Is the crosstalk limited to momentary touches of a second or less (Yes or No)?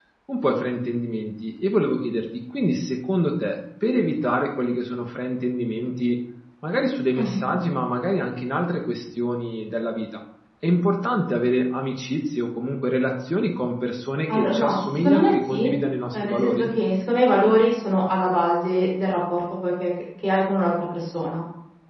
No